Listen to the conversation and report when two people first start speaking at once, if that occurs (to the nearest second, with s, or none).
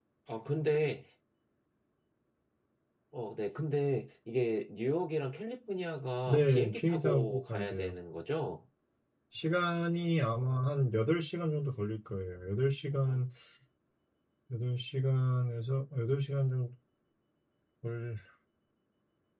6 s